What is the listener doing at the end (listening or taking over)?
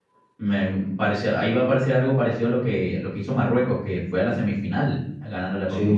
taking over